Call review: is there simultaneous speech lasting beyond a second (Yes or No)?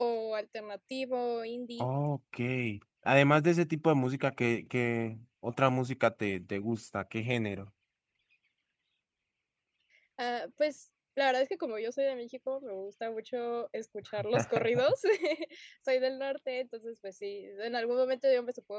No